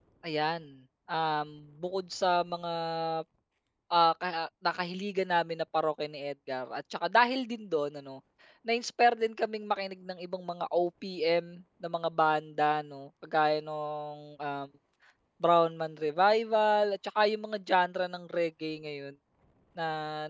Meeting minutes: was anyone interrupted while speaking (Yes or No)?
No